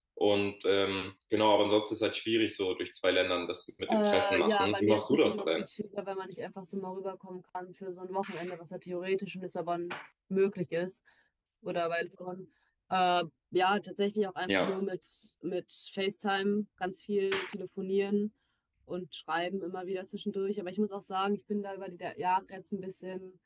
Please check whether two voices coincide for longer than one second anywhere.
Yes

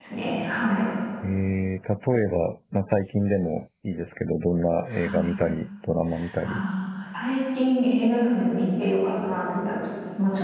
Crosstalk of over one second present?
No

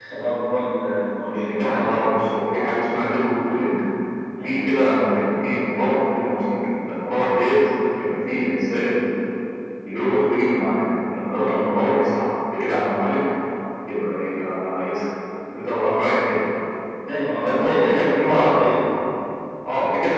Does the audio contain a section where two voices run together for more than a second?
Yes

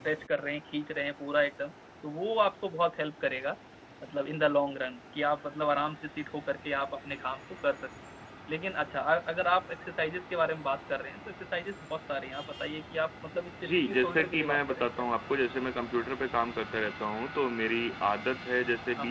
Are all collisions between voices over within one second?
No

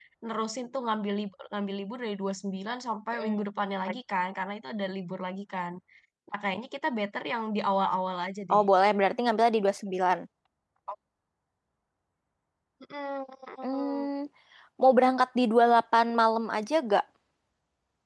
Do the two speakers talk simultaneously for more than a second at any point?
No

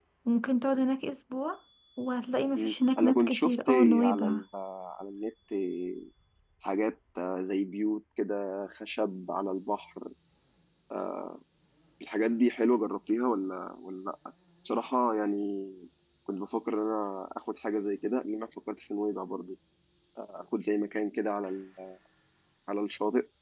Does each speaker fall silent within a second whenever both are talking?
No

